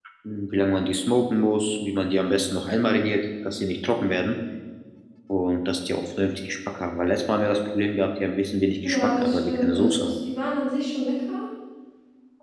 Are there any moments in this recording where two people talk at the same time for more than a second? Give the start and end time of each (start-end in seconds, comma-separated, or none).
8.8-10.1